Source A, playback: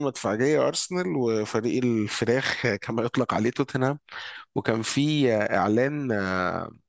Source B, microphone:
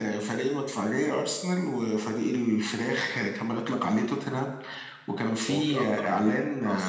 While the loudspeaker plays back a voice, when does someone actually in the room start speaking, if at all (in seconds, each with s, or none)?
5.5 s